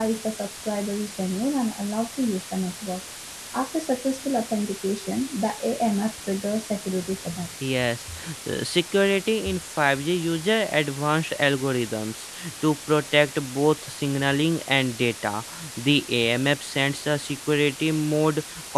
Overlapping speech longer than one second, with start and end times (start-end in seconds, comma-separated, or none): none